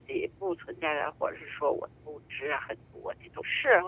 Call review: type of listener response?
taking over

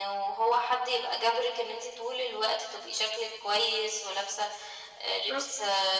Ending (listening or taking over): listening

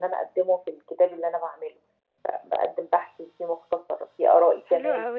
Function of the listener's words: taking over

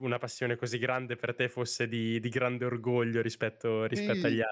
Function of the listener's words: taking over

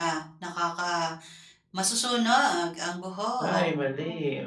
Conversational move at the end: taking over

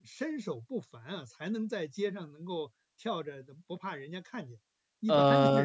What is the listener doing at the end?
taking over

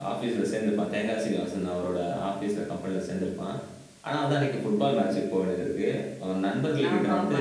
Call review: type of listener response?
listening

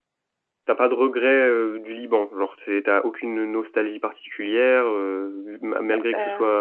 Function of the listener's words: listening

